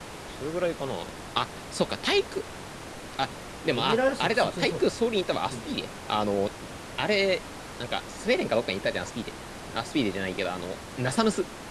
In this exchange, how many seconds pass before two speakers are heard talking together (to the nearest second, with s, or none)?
4 s